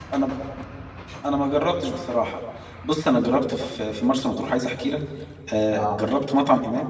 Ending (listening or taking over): listening